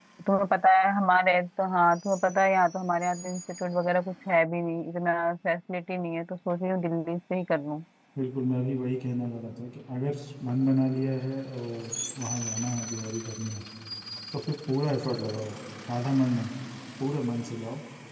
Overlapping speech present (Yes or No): No